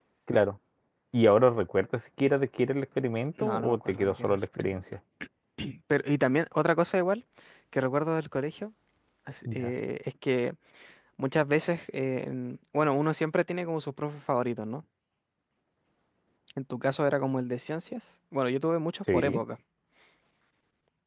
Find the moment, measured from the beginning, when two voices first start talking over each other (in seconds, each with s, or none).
3.4 s